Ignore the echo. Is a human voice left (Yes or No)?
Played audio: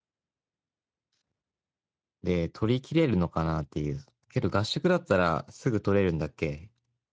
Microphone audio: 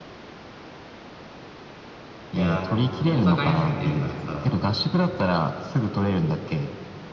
Yes